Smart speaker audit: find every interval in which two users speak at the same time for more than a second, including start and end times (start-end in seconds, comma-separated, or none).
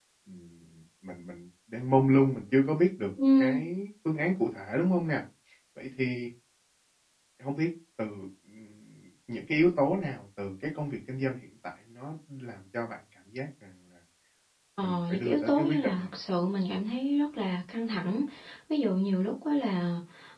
14.8-16.1